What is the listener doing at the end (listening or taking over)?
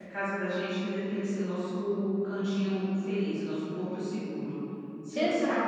listening